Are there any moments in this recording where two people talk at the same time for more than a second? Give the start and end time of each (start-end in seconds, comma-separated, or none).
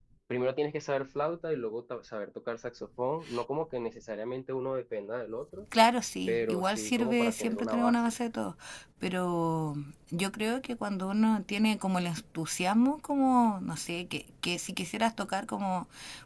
6.3-8.0